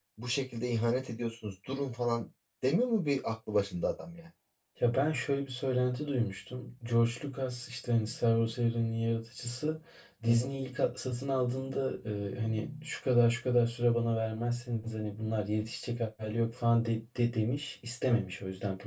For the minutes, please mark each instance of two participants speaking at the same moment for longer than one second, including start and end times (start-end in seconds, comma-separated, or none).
none